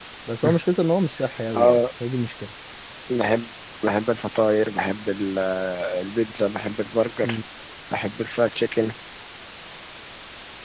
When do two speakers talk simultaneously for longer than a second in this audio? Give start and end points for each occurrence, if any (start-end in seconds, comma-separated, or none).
none